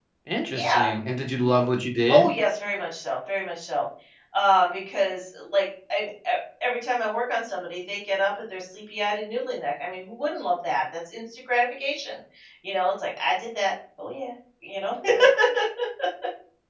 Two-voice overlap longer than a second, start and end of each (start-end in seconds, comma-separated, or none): none